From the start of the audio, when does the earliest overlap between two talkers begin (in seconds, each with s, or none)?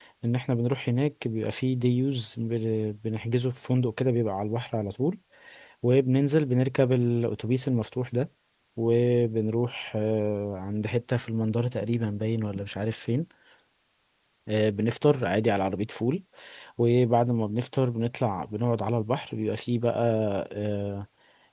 none